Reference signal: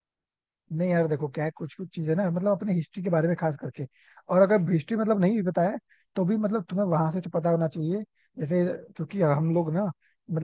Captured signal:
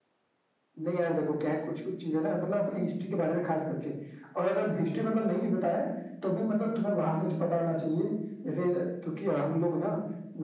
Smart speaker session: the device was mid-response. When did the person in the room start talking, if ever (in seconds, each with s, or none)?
none